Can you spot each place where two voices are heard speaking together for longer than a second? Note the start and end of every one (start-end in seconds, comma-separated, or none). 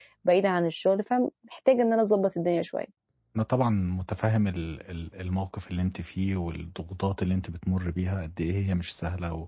none